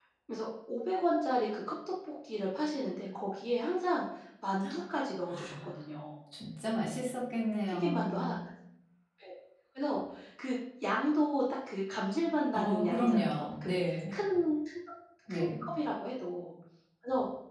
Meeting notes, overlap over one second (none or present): present